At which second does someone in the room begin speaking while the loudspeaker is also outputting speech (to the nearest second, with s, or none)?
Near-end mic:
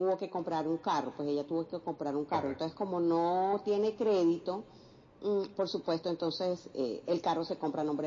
2 s